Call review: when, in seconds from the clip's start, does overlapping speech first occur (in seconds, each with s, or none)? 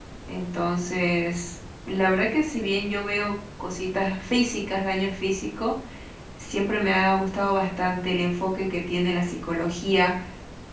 none